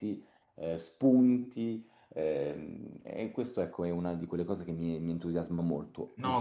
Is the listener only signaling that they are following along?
No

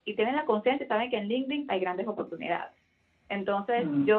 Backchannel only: Yes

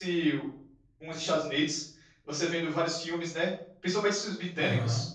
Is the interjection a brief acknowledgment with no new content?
Yes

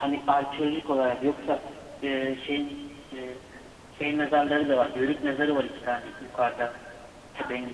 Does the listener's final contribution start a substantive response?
No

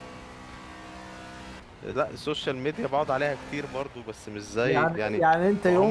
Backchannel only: No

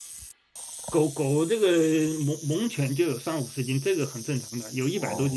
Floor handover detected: Yes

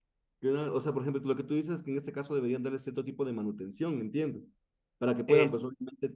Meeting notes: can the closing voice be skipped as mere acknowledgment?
Yes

